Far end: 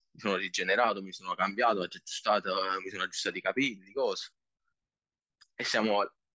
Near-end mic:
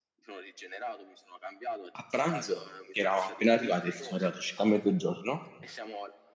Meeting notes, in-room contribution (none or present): present